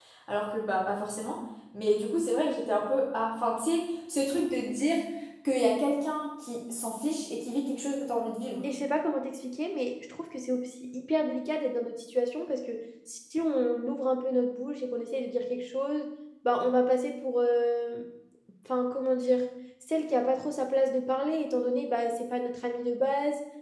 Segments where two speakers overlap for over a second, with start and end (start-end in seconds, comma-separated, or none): none